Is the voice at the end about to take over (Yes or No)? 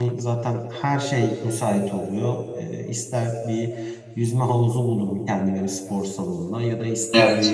No